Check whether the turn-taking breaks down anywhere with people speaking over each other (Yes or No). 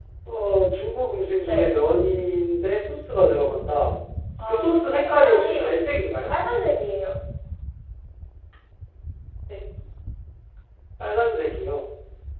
Yes